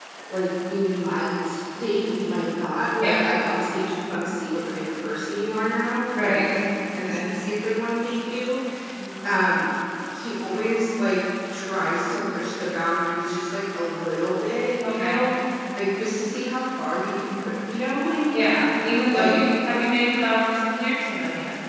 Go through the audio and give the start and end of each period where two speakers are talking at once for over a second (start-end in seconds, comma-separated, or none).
none